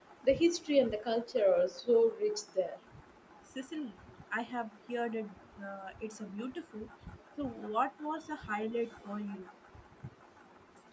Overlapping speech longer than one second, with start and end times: none

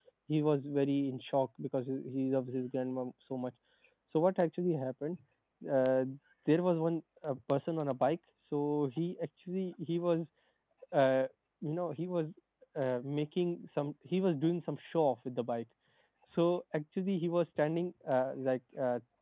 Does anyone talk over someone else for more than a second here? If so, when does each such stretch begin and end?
none

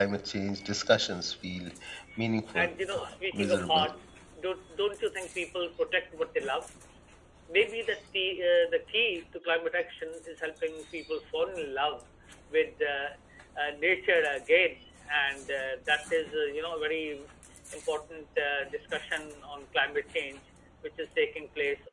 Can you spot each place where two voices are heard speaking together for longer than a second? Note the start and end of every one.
2.6-3.9

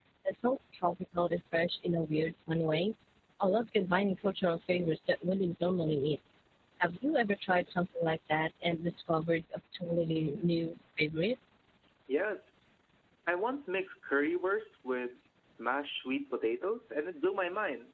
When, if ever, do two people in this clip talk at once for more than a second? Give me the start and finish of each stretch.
none

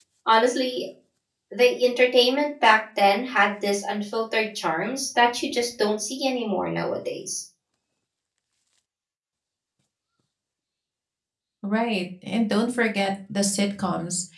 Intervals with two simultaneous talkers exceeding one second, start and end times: none

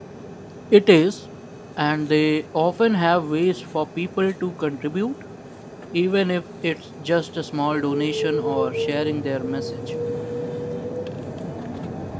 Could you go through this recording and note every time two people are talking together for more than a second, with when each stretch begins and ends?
none

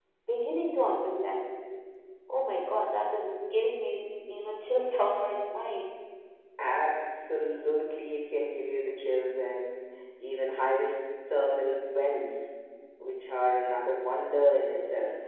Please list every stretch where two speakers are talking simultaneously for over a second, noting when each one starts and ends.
none

